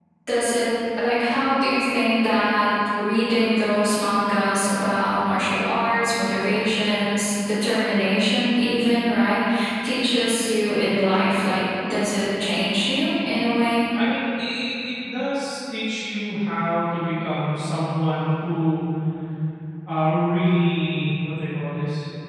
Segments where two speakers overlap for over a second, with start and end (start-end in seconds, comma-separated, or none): none